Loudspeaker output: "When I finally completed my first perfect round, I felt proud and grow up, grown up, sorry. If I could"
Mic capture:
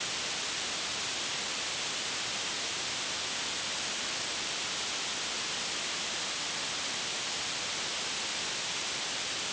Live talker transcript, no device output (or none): none